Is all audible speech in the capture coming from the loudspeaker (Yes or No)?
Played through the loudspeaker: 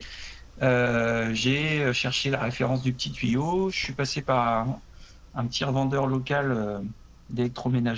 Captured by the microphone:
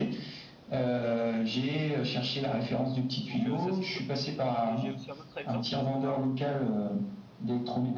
No